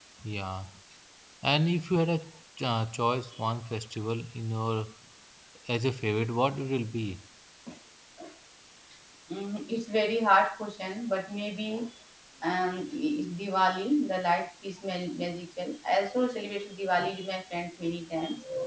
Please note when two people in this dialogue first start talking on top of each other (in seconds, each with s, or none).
none